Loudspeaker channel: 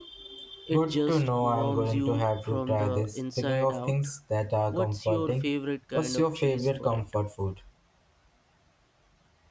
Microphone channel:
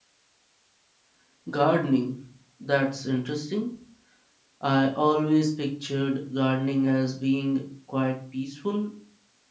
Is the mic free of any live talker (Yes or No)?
No